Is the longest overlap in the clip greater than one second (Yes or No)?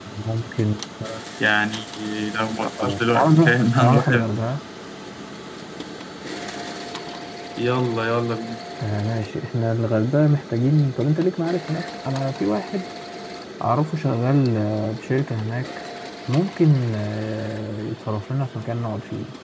Yes